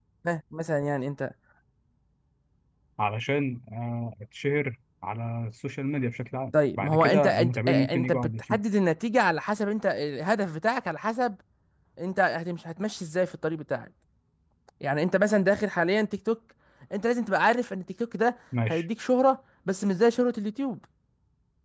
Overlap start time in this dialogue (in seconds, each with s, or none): 6.8 s